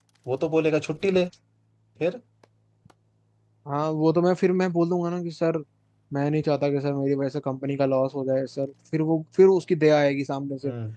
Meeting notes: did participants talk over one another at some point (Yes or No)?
No